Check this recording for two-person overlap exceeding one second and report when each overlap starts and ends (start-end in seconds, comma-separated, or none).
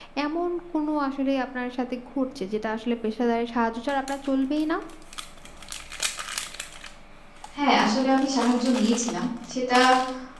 none